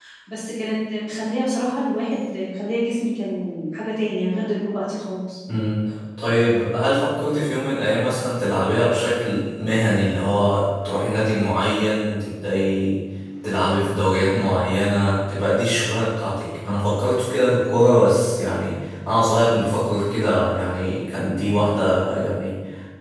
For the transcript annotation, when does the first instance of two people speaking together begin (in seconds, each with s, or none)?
none